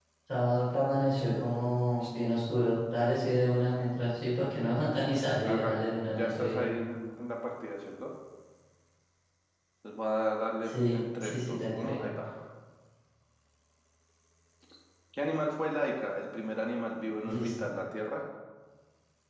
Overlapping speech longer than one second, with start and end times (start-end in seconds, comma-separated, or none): 5.4-6.7, 10.7-12.0